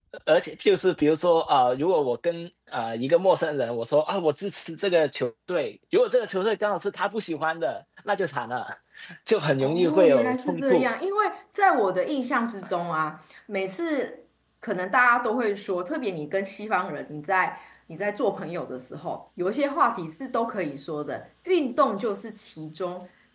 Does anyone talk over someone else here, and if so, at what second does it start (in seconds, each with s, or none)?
9.6 s